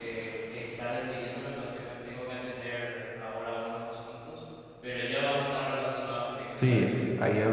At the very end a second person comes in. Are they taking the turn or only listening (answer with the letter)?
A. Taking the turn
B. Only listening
A